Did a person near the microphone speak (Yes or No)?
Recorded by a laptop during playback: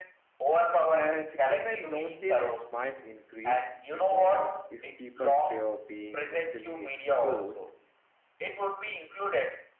Yes